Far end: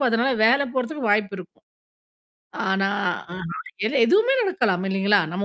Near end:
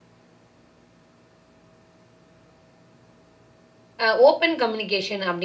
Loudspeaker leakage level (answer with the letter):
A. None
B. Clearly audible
A